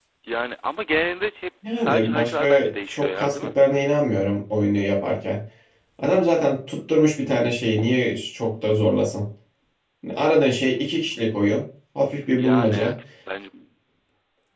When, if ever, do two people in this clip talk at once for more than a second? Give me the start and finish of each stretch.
1.8-3.4

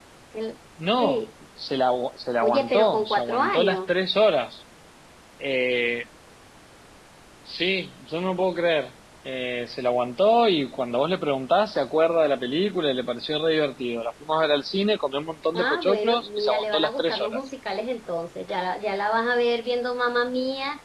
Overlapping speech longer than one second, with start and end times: 2.4-3.9, 15.6-17.4

